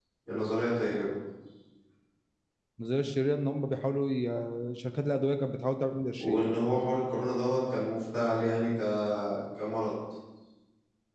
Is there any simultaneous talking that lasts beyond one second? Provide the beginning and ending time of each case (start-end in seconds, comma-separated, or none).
none